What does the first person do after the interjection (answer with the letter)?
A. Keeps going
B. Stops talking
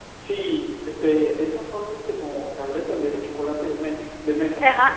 B